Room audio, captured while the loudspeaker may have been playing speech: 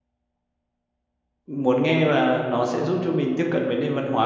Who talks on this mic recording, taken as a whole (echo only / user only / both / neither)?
user only